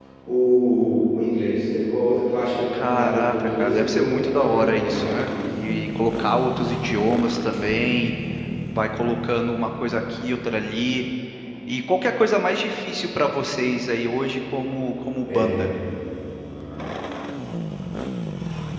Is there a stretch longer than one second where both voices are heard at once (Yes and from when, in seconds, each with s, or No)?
Yes, from 2.7 s